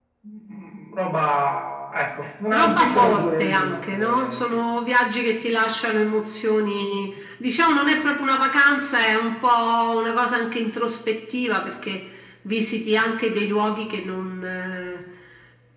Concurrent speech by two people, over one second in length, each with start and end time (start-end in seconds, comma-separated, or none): 2.5-4.6